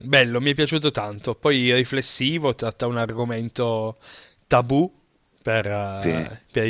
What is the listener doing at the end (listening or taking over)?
listening